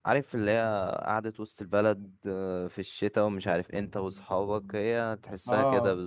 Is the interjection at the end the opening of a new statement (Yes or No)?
Yes